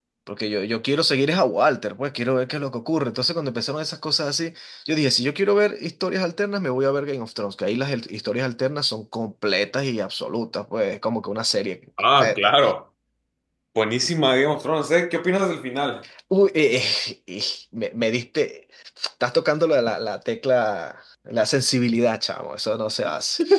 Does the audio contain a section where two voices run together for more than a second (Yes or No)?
No